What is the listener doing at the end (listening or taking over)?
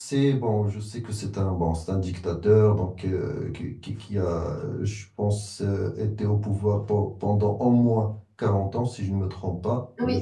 taking over